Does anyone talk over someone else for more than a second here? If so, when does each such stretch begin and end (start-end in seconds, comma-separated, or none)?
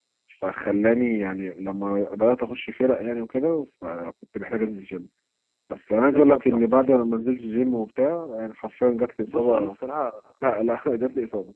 none